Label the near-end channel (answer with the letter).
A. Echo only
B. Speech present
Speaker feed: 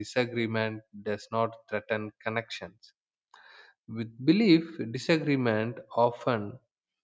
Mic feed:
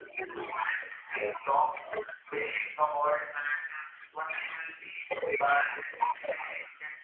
B